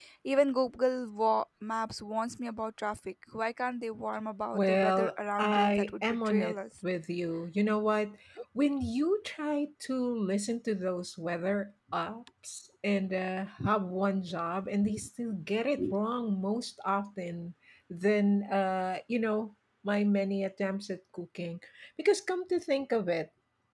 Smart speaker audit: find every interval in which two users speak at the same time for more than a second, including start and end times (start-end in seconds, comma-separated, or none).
4.5-6.6